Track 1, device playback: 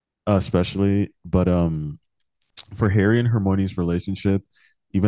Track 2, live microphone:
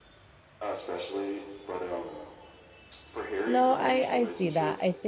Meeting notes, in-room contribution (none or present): present